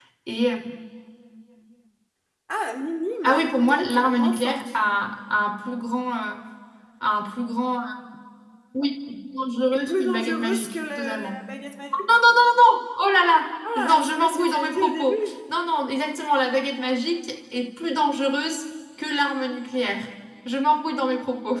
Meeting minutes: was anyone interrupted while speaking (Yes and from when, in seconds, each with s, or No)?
Yes, from 3.2 s